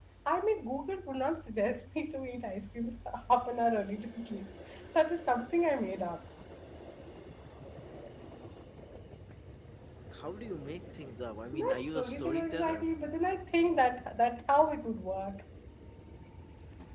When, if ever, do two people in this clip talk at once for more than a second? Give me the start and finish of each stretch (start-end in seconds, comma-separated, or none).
11.5-12.8